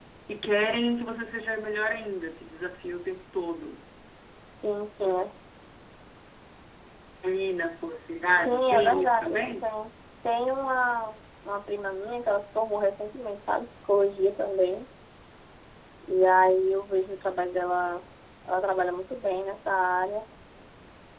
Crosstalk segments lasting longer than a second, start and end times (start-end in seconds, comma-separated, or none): 8.3-9.7